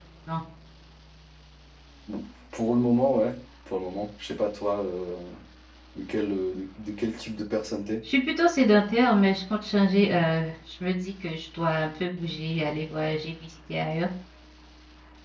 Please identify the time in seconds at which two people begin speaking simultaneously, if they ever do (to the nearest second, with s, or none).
none